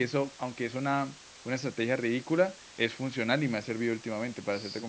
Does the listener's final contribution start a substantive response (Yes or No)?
Yes